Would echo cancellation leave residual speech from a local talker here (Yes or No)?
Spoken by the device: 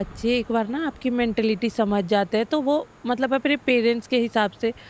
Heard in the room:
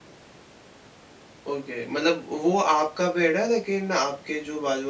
Yes